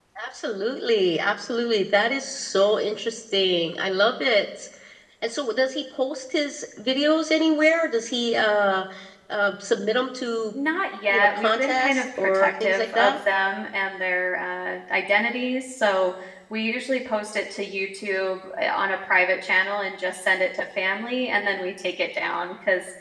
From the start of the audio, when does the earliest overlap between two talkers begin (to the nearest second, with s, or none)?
11 s